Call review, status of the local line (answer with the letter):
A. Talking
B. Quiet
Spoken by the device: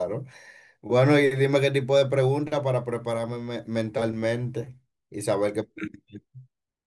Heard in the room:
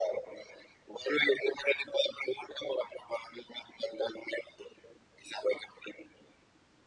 B